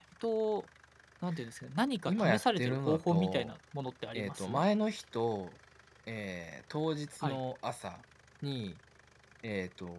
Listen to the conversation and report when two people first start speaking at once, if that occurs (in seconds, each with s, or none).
2.1 s